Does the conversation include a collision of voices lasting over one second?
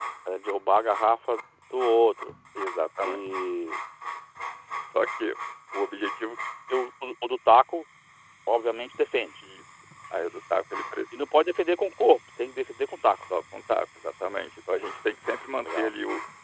No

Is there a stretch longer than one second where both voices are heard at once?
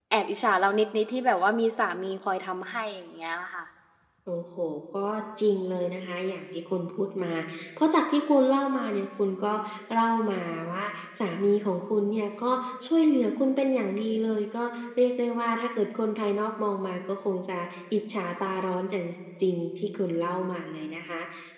No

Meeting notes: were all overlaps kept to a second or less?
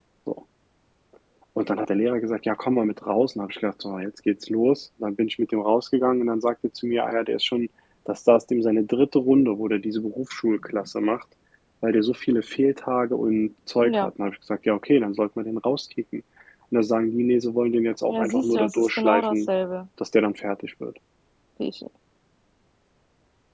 No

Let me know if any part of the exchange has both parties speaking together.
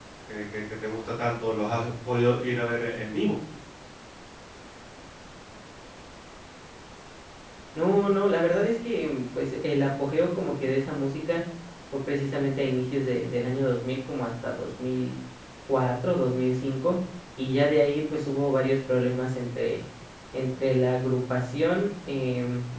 No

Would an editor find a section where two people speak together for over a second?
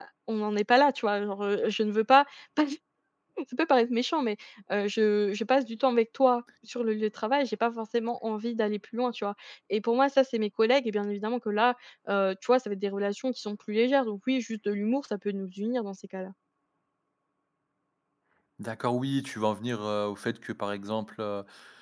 No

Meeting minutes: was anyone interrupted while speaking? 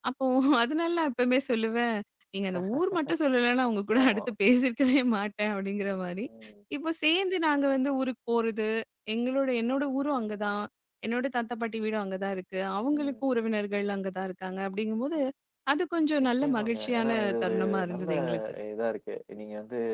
Yes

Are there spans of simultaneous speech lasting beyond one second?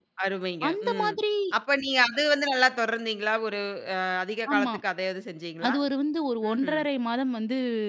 No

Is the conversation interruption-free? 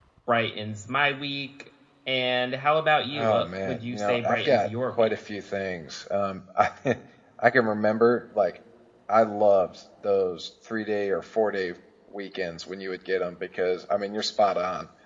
No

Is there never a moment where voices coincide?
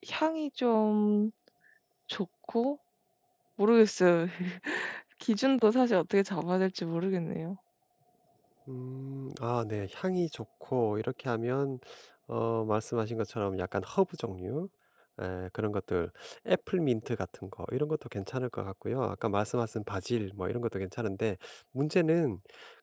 Yes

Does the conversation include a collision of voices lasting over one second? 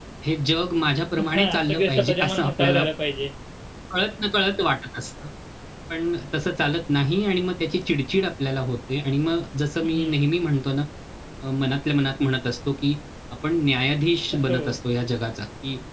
Yes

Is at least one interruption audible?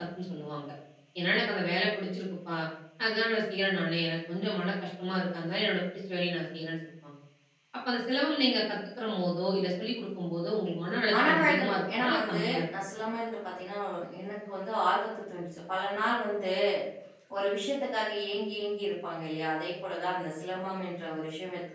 Yes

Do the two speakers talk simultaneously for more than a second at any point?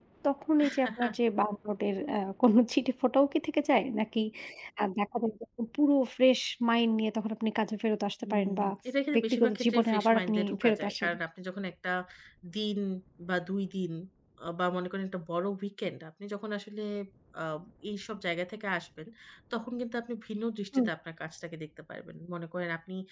Yes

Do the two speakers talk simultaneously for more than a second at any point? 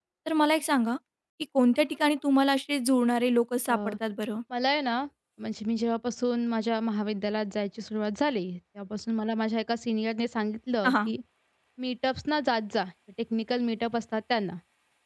No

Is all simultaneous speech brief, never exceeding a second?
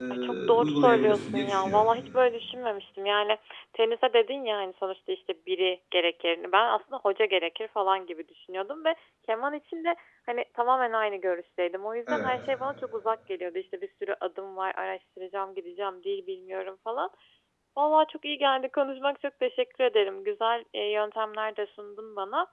No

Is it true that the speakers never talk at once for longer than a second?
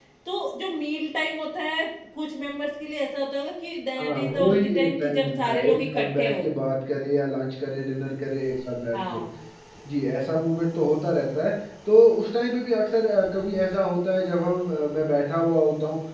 No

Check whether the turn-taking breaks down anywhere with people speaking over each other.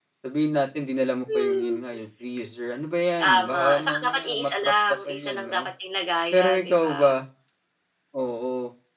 Yes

